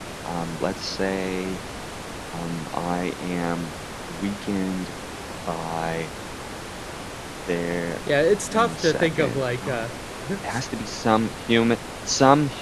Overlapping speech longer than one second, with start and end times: 8.5-9.8

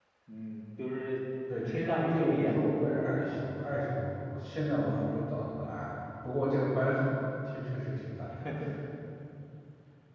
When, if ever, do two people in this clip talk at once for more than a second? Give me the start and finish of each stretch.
1.7-3.4

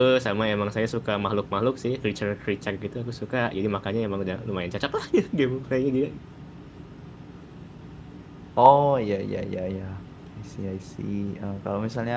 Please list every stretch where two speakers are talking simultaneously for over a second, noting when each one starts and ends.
none

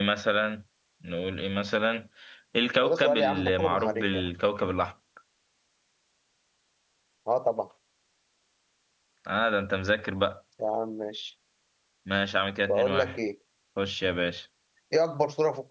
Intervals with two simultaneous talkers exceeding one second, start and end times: 2.8-4.3

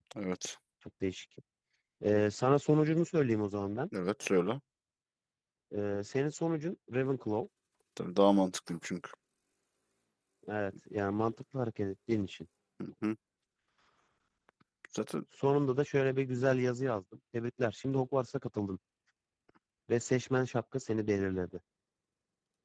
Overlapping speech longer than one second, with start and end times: none

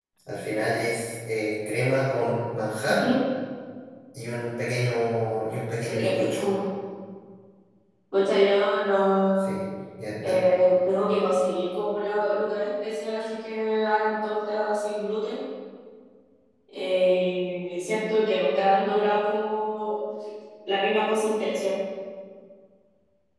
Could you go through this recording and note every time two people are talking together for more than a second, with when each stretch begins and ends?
none

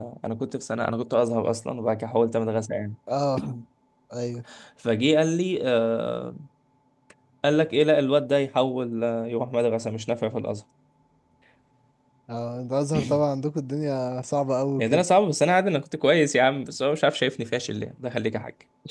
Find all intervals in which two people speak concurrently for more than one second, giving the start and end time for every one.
none

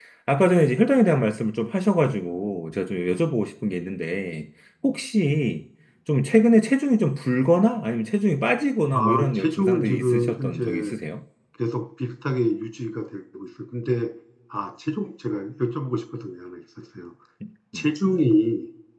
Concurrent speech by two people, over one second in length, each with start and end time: 8.9-11.0

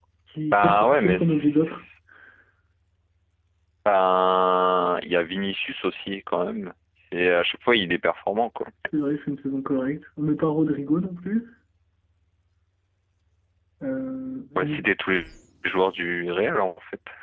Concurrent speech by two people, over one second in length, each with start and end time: 0.5-1.8

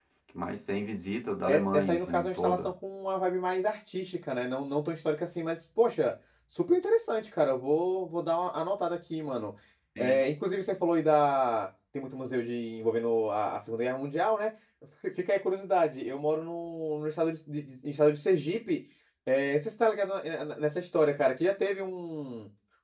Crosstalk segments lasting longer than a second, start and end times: 1.5-2.7

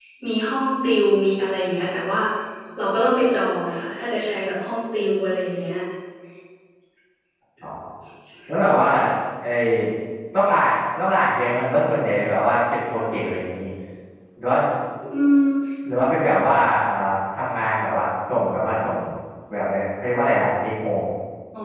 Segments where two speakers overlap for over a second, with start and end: none

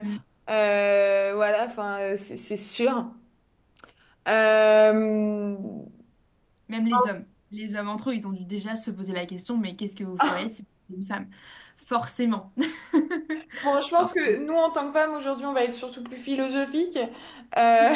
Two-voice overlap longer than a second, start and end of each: none

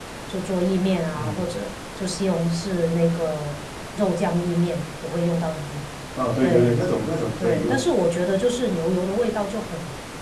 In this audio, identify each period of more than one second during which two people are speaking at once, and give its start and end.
none

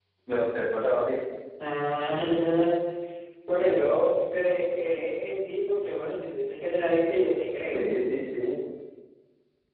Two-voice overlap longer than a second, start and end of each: none

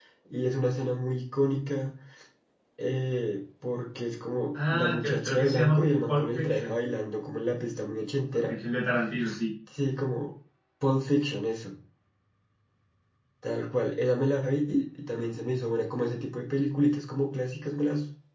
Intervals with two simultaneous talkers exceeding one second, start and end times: 4.7-6.7

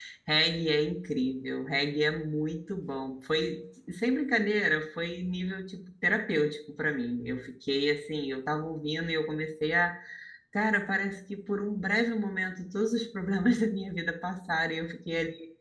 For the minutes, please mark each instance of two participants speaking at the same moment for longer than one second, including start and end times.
none

